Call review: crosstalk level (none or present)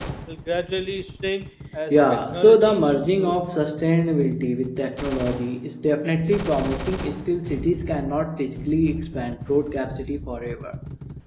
present